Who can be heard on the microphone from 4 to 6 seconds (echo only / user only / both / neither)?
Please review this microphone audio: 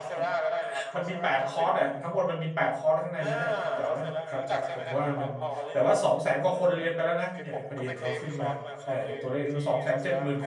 both